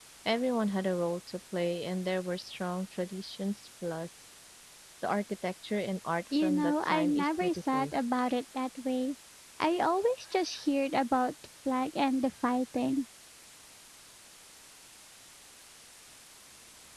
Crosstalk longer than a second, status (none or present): present